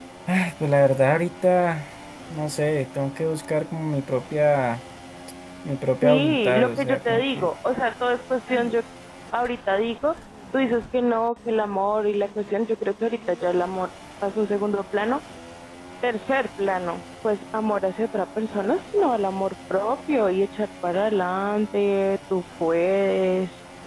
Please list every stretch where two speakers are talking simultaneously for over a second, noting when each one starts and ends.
6.0-7.5

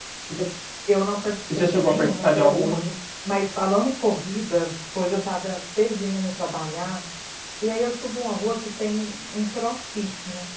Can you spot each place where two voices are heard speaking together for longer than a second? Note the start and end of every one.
1.6-2.8

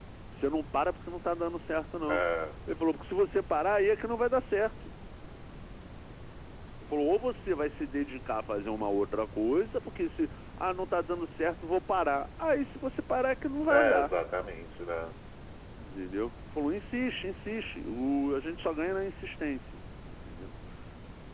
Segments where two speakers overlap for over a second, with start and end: none

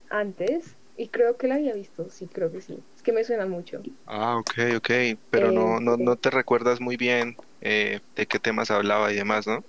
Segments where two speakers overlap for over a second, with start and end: none

